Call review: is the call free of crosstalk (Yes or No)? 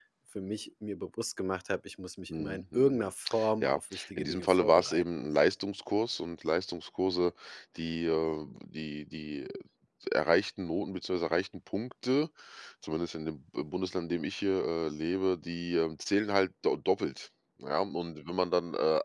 No